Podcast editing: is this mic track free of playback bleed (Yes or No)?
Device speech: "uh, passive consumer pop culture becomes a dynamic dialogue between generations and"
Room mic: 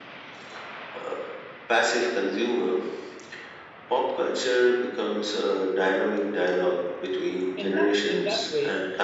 No